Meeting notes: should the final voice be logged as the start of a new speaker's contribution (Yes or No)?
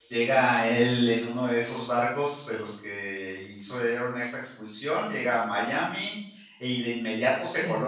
No